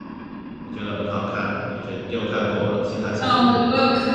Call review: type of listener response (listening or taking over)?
taking over